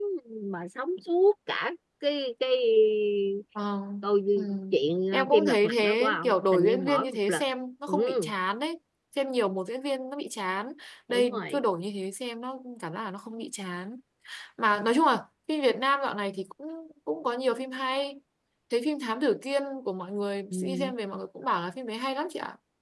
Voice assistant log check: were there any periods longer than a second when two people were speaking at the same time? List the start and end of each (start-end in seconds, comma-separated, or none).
5.1-7.4